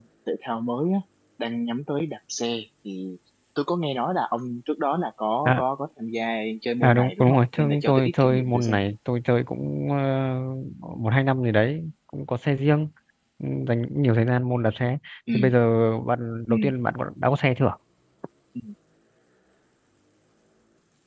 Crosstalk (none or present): present